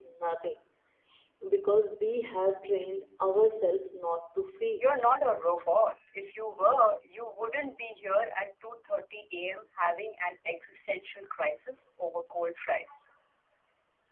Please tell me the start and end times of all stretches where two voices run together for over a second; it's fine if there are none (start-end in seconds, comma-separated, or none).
none